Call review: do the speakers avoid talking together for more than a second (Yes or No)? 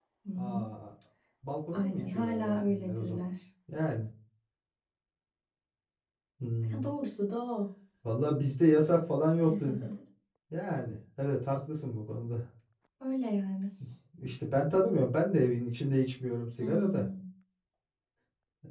No